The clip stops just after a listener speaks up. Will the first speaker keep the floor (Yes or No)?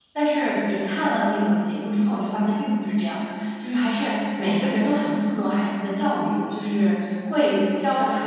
Yes